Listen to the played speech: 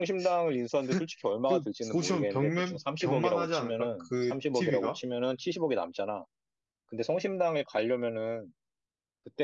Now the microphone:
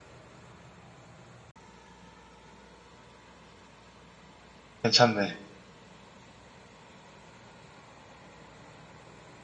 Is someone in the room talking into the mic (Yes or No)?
Yes